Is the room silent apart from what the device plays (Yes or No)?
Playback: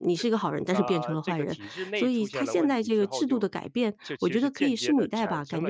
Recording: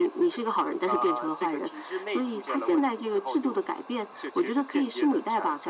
Yes